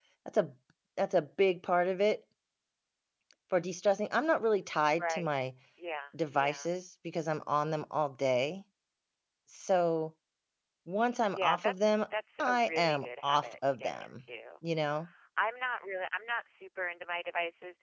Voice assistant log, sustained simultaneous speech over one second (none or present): present